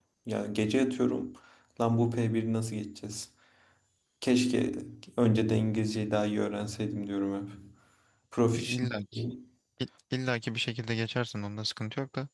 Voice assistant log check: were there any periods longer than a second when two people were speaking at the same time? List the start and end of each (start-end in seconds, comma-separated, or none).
none